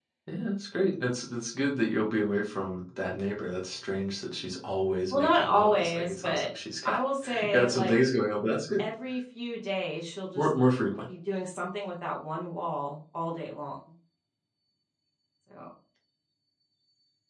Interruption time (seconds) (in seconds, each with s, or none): 5.1 s